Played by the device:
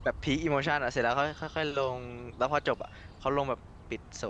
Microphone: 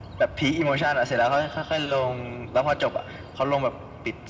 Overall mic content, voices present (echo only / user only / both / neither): echo only